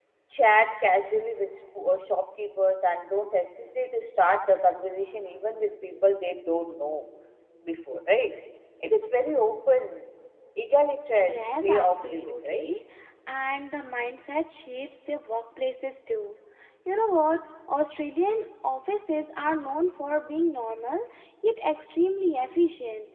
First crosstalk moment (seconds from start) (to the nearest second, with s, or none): 11 s